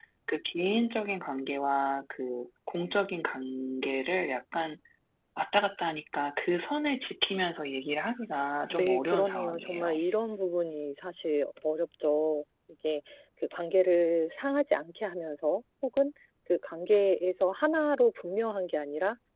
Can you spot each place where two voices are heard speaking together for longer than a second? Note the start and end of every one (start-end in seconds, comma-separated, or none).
8.8-10.0